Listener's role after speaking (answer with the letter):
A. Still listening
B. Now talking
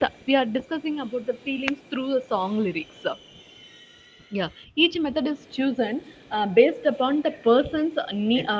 A